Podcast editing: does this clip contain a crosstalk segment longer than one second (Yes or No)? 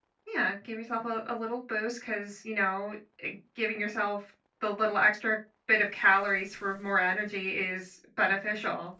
No